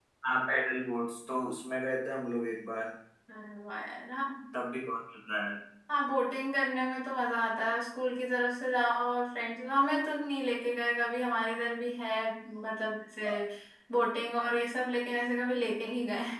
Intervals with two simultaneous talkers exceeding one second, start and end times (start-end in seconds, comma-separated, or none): none